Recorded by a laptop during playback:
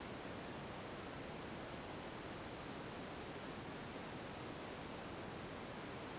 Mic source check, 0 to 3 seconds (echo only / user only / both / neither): neither